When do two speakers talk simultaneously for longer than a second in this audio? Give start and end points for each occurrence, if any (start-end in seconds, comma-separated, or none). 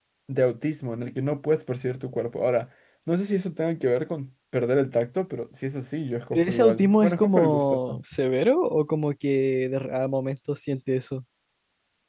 6.3-8.0